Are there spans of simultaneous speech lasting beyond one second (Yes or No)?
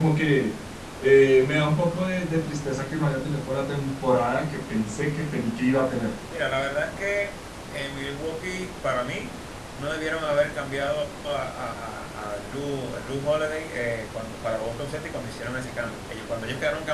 No